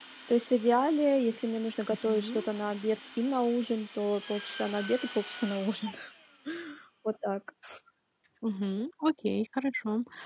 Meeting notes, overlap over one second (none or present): none